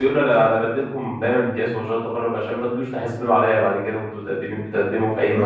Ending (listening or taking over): taking over